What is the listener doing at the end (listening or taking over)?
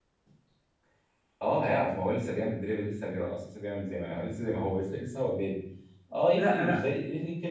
listening